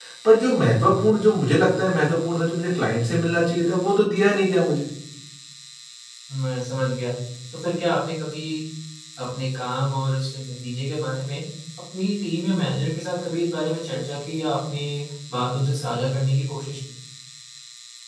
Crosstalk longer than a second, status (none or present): none